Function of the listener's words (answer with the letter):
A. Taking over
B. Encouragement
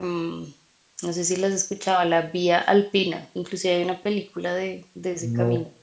A